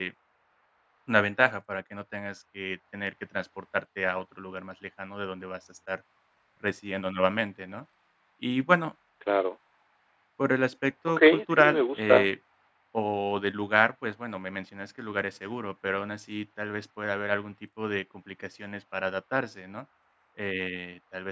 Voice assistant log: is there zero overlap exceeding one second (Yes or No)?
No